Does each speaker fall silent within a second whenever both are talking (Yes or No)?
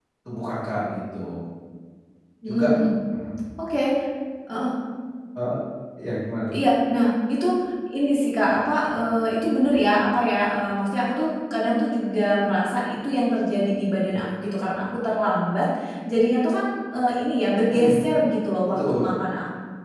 Yes